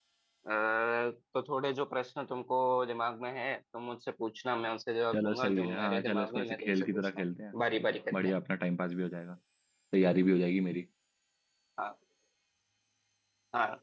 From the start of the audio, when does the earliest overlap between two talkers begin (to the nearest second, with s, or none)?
5 s